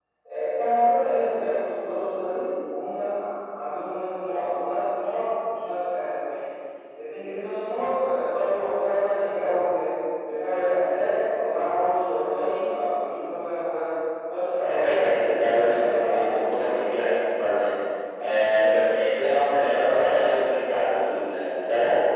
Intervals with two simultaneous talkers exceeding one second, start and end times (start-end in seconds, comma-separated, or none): 15.5-16.8